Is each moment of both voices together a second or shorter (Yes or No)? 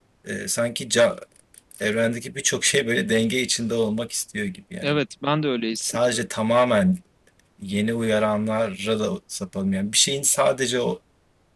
Yes